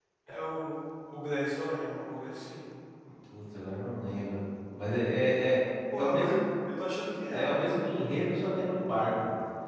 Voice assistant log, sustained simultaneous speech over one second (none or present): none